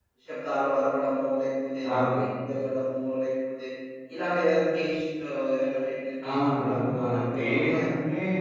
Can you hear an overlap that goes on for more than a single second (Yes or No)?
Yes